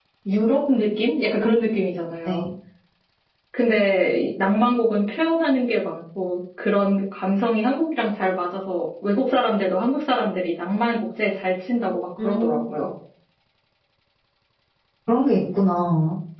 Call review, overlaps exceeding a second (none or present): none